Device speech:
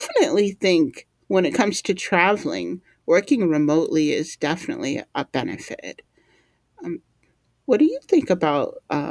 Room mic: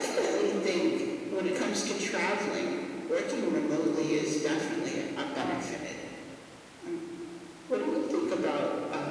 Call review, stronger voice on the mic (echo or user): echo